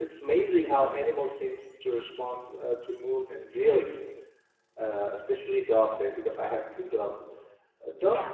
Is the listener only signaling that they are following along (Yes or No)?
Yes